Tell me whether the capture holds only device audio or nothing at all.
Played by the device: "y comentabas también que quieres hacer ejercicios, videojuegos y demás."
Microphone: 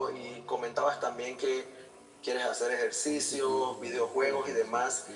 No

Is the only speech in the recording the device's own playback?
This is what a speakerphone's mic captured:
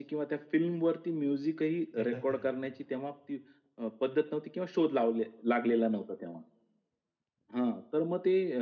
No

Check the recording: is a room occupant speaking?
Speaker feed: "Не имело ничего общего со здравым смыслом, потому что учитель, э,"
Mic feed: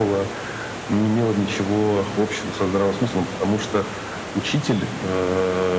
No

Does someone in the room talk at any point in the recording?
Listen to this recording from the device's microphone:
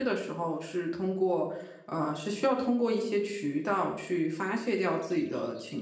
Yes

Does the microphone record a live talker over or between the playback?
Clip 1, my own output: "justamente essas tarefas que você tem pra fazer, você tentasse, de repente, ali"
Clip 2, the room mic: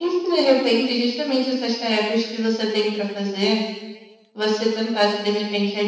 No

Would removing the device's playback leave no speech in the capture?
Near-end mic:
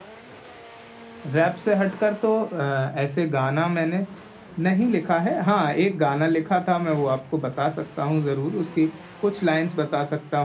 Yes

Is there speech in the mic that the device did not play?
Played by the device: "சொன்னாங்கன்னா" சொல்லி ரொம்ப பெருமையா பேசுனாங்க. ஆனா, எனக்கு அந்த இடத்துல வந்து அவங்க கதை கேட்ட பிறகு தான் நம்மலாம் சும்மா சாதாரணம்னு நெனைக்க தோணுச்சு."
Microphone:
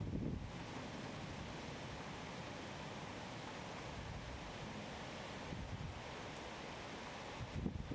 No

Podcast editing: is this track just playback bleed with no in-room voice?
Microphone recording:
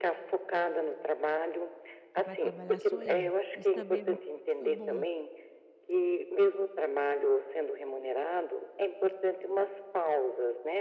No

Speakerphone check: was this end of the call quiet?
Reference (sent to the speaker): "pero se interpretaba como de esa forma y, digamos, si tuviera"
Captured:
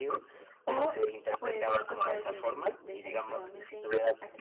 No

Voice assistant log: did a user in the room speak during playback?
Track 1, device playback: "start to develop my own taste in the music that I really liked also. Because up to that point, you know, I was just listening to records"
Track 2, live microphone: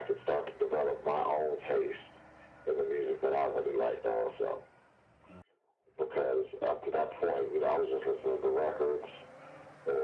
No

